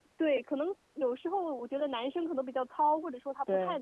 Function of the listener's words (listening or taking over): listening